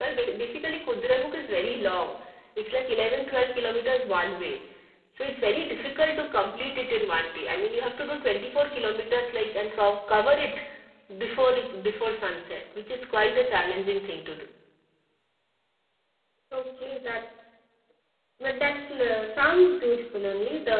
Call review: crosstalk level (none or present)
none